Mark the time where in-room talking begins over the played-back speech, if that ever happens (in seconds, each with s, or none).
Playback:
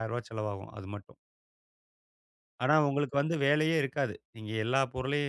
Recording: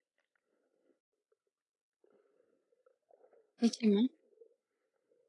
3.6 s